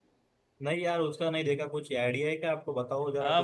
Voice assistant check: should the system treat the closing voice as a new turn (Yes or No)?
Yes